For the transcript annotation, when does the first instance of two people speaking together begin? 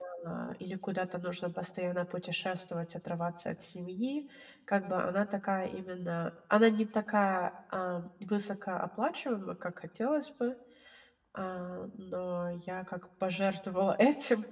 none

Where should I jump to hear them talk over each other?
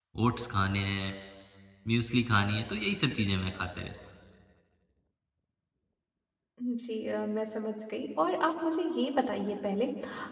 none

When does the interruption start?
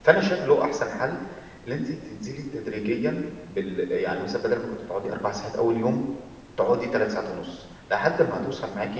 none

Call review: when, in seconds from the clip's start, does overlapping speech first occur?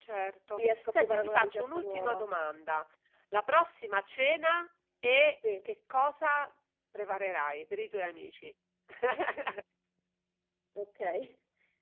0.5 s

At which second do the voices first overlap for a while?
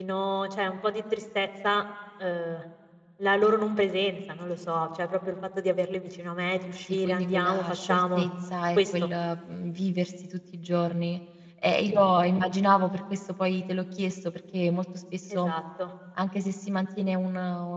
6.9 s

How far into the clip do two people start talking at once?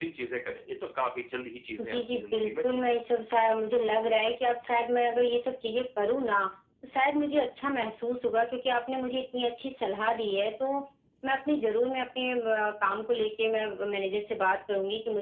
1.8 s

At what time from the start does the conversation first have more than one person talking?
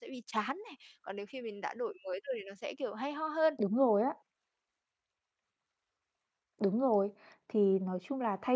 none

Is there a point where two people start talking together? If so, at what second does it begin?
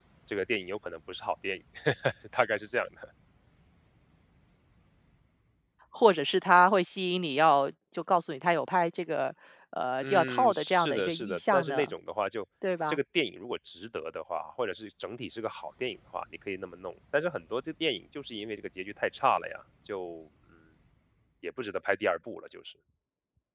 10.0 s

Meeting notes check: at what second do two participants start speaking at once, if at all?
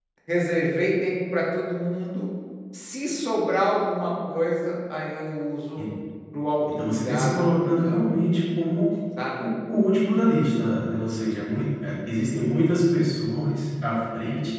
6.9 s

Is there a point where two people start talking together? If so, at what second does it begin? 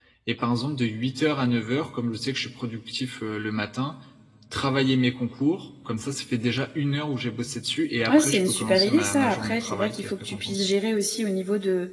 8.1 s

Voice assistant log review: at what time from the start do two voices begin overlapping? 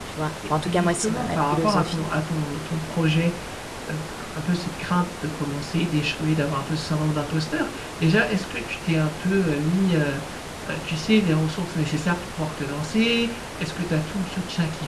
0.6 s

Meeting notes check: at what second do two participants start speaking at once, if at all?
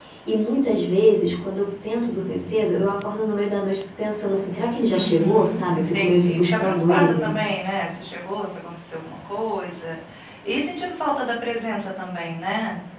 4.9 s

